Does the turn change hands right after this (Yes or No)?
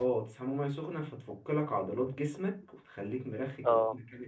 Yes